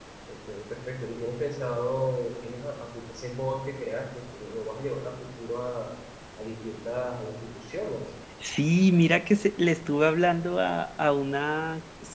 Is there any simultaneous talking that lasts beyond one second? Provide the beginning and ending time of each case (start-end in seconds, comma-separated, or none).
none